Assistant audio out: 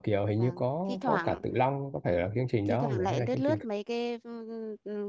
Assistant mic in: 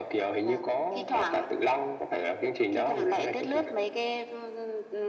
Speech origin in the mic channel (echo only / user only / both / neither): echo only